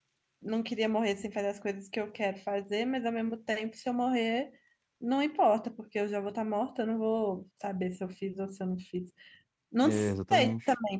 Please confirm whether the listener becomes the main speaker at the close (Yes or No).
No